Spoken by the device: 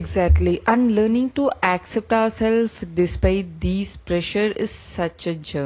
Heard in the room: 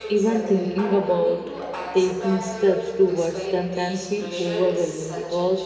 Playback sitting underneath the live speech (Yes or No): Yes